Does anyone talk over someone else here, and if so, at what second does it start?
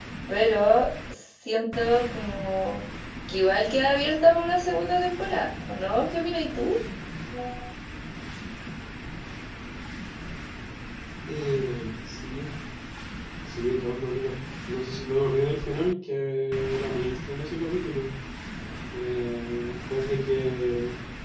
none

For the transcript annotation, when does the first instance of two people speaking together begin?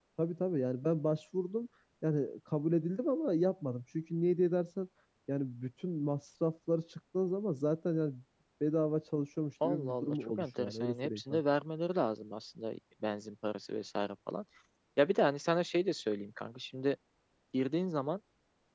9.6 s

